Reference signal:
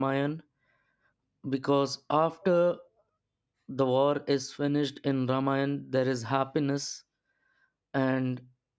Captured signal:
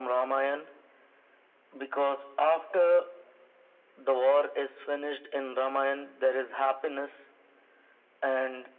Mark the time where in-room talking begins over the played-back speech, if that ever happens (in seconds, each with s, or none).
none